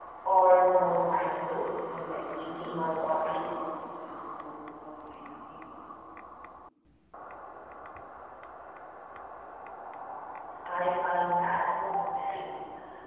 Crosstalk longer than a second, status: present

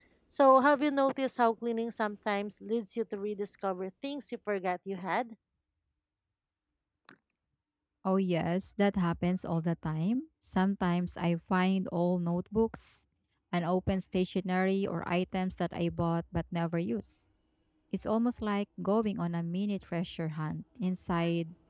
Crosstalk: none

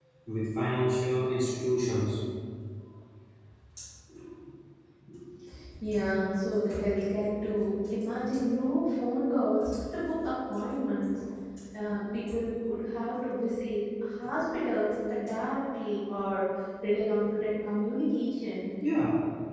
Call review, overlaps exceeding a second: none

